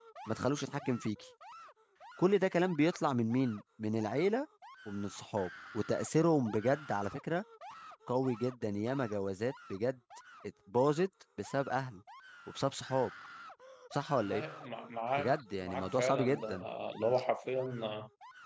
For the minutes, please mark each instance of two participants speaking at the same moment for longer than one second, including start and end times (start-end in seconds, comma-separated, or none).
15.2-16.6